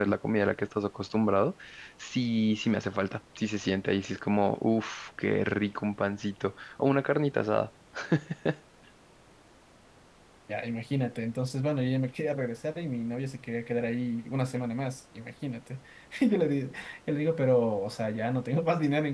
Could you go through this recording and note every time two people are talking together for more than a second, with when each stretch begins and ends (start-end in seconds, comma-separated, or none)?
none